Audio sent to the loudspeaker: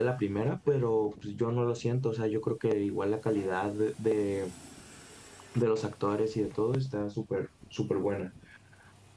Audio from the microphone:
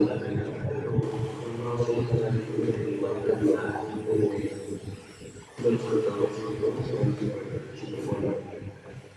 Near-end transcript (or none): none